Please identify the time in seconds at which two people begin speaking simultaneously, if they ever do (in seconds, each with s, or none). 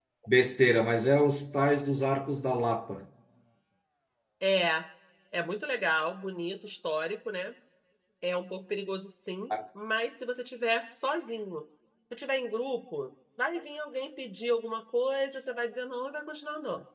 none